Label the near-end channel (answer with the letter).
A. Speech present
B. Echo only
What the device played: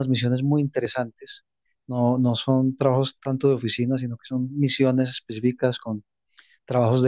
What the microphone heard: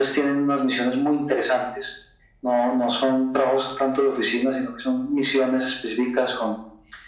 B